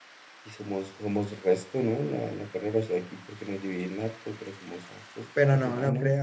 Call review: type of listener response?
taking over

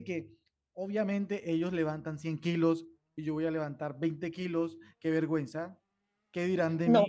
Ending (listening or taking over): taking over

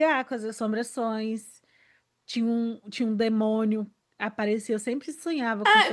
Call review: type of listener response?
taking over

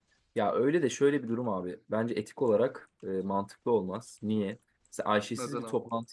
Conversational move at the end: listening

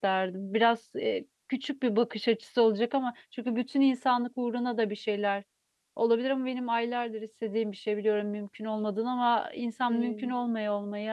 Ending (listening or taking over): listening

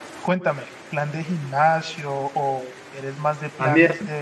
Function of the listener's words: taking over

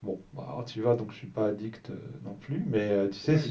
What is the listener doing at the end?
taking over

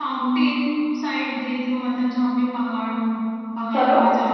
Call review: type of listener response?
listening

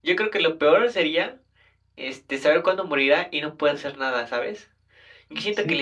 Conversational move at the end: listening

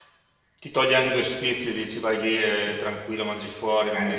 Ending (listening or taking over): taking over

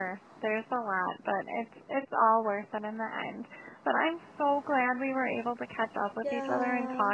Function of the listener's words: listening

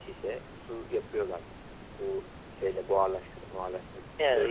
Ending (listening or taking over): taking over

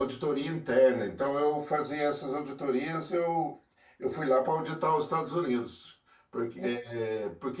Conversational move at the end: listening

